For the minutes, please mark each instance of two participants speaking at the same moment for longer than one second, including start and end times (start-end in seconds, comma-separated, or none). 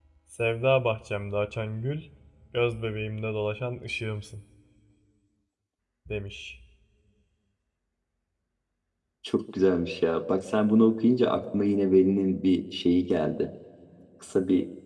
none